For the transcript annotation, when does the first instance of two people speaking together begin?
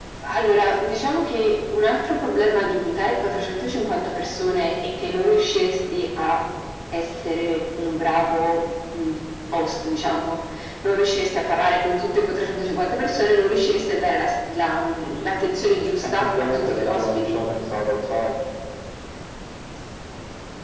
16.0 s

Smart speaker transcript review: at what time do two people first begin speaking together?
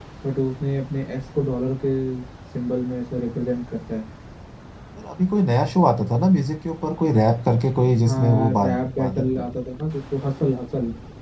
8.0 s

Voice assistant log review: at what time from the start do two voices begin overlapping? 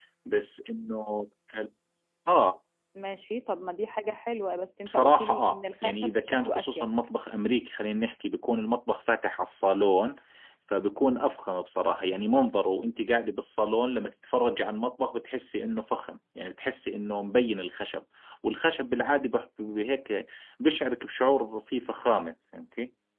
4.9 s

